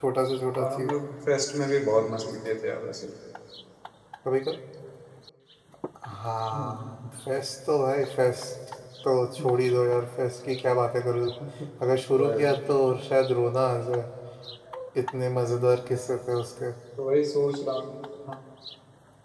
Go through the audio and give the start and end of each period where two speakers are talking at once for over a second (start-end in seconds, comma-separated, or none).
none